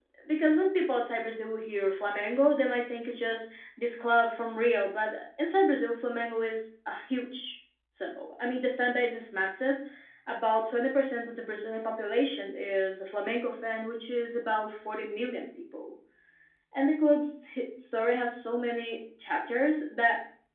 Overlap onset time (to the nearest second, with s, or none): none